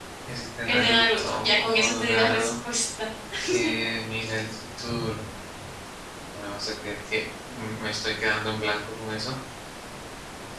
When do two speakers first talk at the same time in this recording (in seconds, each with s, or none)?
0.6 s